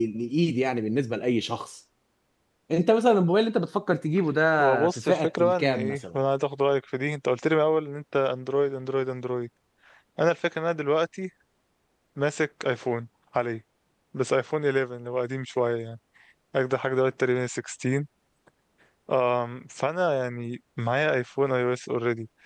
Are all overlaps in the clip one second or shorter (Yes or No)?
No